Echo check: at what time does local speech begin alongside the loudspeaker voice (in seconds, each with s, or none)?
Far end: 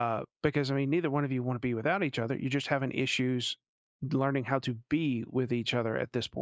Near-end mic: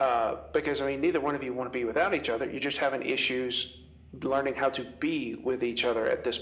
none